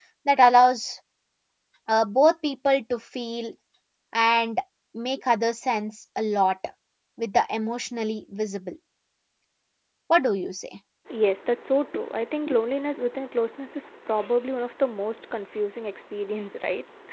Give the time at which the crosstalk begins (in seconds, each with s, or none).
none